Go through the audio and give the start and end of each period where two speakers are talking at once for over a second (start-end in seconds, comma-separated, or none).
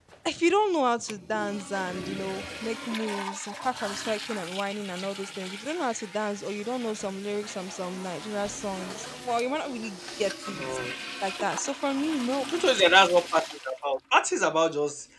none